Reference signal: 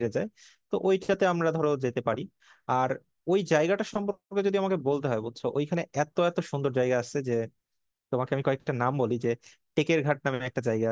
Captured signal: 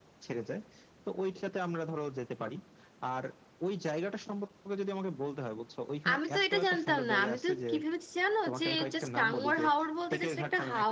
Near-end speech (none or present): present